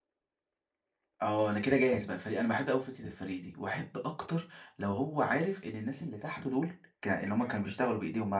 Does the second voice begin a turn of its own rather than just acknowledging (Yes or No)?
No